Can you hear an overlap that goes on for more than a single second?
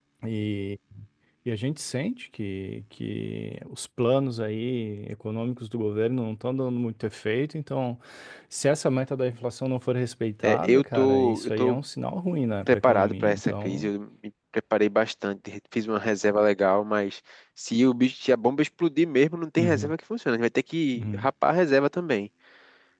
Yes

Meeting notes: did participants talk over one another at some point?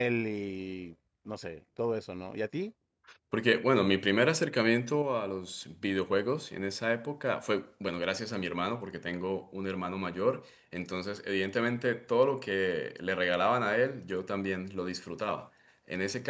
No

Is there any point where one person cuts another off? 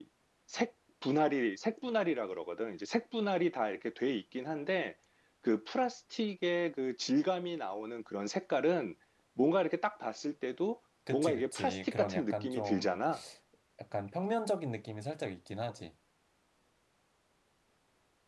Yes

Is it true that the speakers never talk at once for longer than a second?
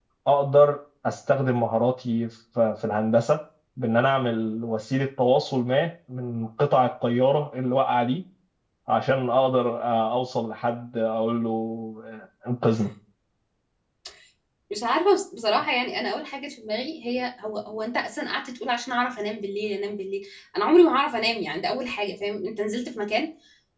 Yes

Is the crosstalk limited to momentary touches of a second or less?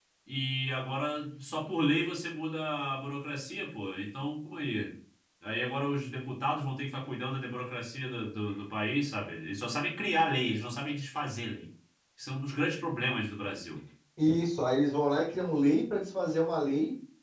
Yes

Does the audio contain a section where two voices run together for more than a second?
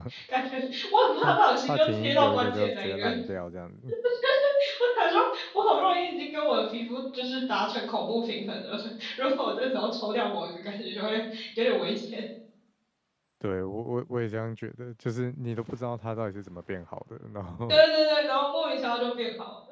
Yes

